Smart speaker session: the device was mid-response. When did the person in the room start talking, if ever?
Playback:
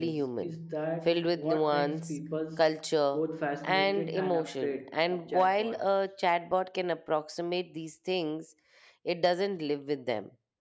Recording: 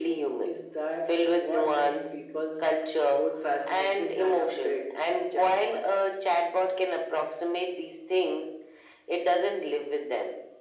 none

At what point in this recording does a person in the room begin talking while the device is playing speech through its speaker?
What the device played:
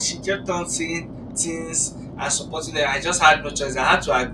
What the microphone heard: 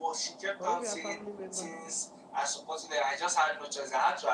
0.6 s

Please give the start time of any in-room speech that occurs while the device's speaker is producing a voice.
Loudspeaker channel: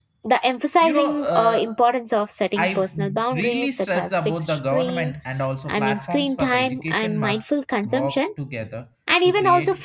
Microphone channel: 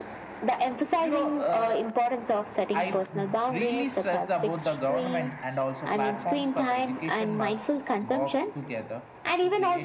none

